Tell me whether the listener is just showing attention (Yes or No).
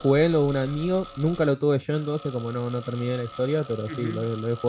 No